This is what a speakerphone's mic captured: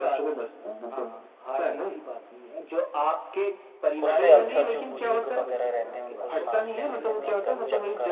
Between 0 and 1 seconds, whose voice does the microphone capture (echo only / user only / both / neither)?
echo only